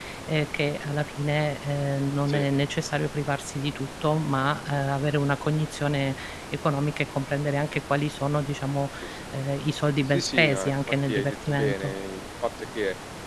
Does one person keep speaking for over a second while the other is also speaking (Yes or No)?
Yes